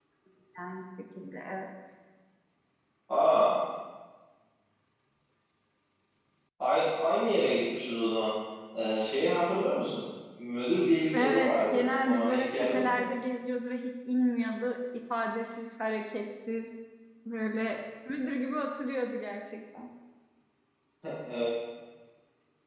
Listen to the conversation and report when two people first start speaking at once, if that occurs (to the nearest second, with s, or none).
11 s